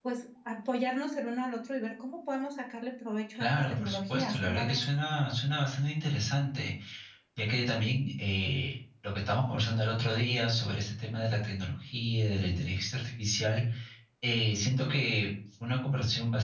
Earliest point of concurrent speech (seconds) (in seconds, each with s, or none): 3.3 s